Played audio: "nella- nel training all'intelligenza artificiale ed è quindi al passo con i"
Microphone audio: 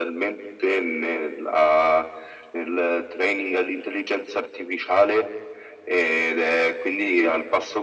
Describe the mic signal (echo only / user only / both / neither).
echo only